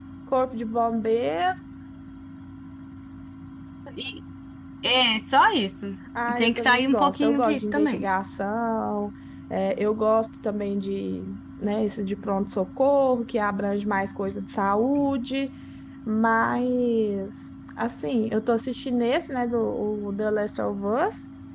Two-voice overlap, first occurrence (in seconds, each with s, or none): 6.3 s